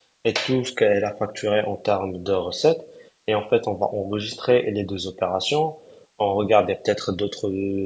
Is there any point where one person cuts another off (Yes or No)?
No